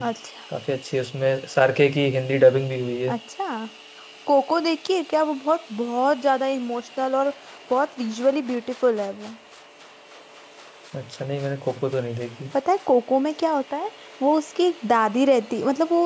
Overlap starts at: none

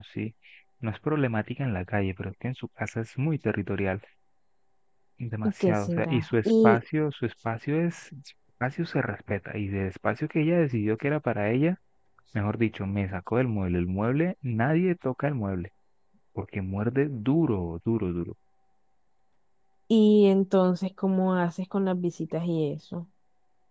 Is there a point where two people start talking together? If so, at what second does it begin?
5.4 s

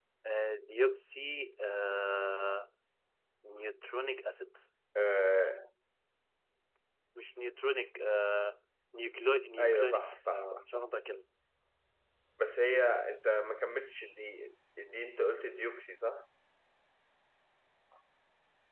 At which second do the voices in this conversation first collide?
9.6 s

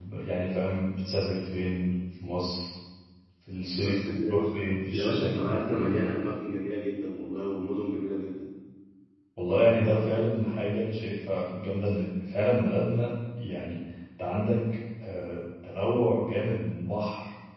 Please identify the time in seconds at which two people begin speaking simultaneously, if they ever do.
3.8 s

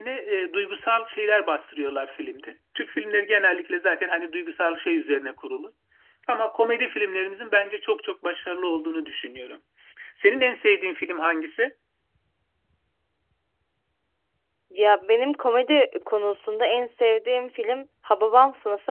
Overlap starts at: none

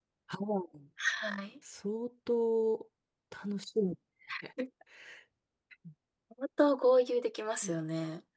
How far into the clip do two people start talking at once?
none

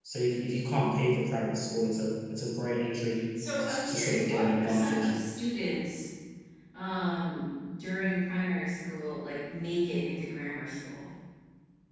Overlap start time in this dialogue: 3.6 s

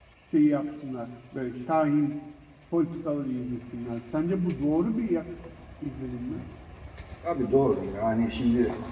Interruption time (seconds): none

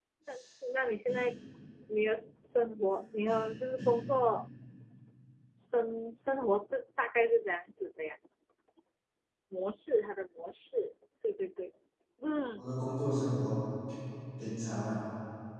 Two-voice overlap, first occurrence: none

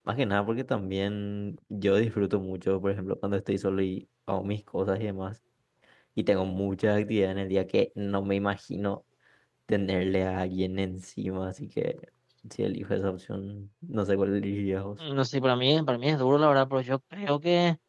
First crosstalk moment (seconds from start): none

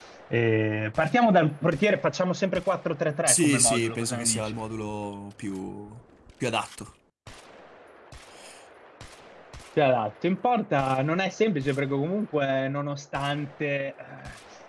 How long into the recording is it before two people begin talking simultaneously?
3.2 s

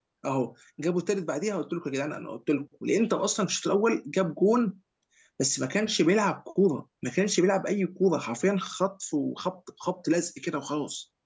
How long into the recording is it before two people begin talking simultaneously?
none

